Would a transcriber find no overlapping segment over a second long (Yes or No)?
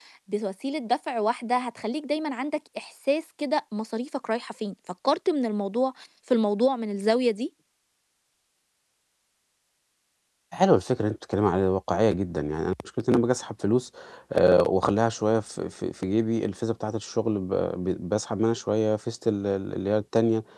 Yes